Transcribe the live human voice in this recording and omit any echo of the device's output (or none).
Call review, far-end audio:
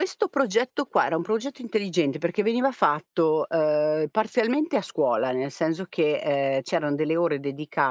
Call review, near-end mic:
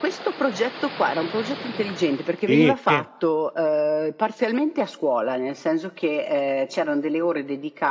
sì, sì,